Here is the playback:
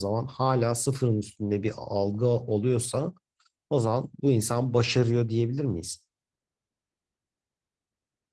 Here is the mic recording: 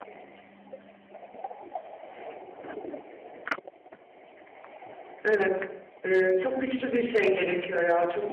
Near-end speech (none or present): present